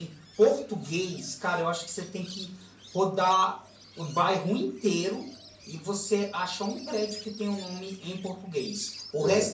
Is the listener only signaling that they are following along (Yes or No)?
Yes